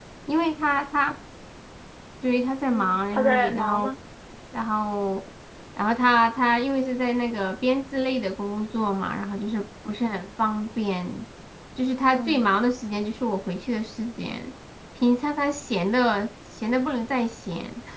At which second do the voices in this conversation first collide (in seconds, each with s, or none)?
2.7 s